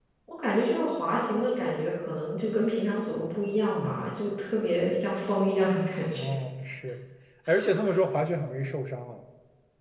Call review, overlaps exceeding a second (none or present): none